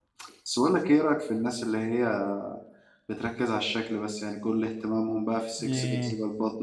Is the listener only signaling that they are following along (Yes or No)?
Yes